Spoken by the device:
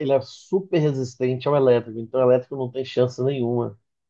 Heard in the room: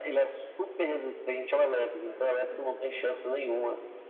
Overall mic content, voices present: both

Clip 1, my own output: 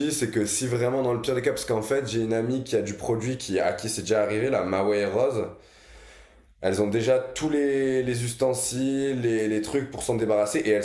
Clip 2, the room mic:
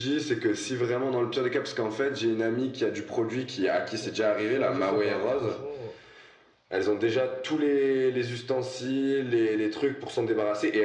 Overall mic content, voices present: both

